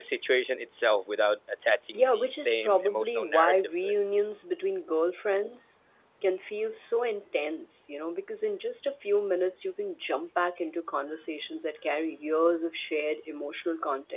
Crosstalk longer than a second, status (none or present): present